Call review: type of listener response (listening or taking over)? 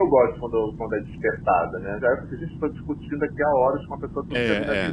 taking over